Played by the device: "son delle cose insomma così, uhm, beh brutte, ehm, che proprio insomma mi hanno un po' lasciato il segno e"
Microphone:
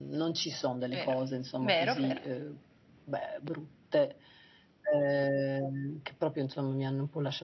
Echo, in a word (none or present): present